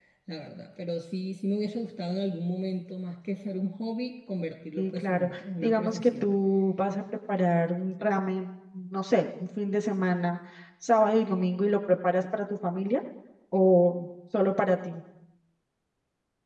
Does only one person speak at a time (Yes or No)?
No